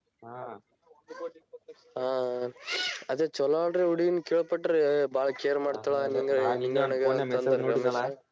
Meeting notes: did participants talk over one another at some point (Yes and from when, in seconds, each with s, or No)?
Yes, from 5.7 s